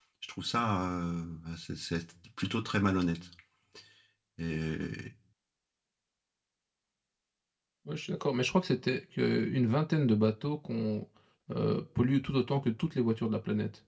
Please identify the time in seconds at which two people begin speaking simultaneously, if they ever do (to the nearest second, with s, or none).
none